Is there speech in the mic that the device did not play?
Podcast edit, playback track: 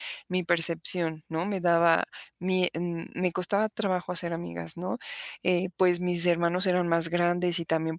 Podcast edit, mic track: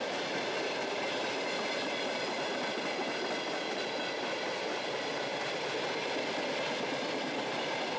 No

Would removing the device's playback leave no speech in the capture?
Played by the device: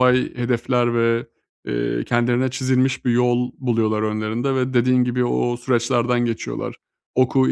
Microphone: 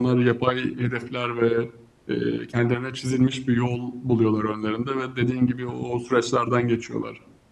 Yes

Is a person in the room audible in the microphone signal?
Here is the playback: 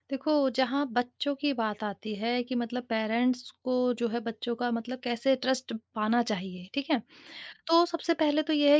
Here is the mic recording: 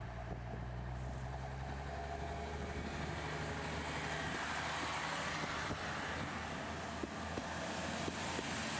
No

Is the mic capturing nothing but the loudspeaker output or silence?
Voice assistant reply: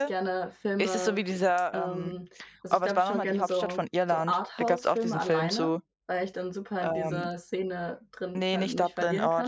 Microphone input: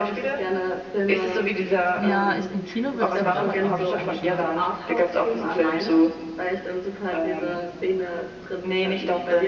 No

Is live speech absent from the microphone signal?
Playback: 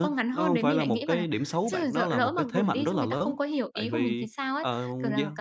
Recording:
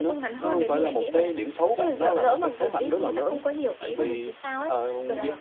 Yes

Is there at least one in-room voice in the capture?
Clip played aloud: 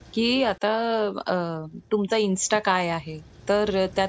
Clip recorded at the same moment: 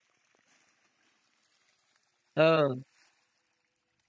Yes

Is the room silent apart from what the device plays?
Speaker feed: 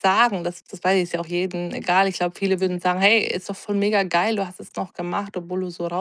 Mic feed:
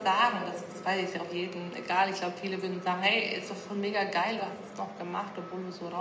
Yes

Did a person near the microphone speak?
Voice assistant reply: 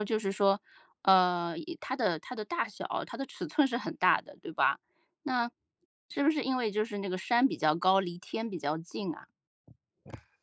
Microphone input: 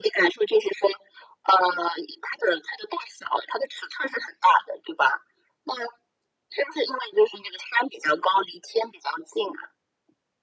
No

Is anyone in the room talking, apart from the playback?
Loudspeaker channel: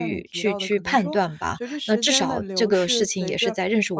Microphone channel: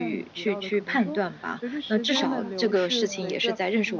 Yes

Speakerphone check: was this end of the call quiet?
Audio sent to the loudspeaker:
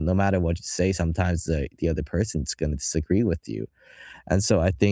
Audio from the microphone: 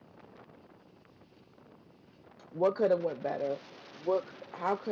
No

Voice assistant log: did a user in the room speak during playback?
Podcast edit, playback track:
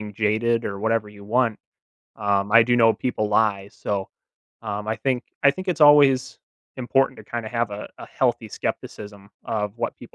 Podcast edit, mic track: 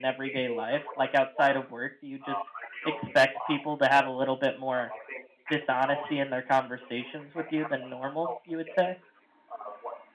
Yes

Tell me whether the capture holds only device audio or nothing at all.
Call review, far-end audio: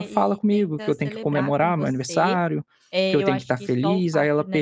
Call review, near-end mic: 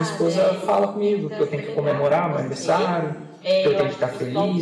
Yes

